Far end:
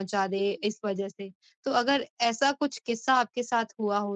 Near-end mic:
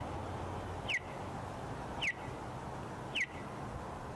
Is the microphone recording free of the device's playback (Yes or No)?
Yes